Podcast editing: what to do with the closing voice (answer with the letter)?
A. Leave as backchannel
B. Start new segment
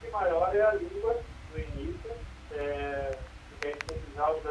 A